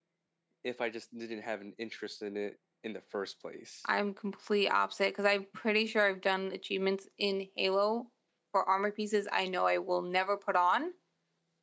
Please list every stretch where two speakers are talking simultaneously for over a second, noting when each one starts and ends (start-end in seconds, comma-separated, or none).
none